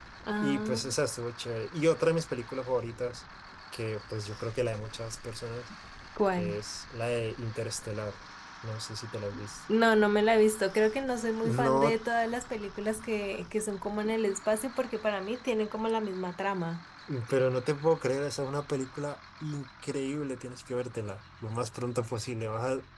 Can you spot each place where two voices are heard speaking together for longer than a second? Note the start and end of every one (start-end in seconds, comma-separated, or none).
none